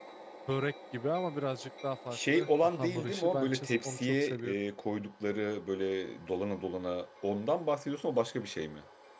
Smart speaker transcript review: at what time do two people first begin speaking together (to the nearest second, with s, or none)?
2 s